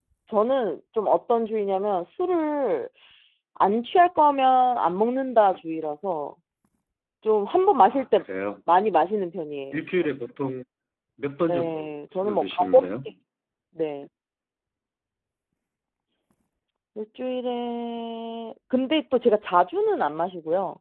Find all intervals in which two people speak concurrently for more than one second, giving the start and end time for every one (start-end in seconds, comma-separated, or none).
11.5-12.9